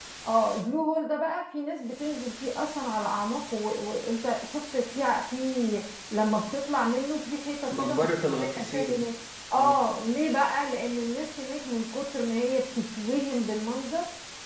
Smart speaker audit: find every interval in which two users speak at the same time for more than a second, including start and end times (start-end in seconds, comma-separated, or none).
7.7-9.1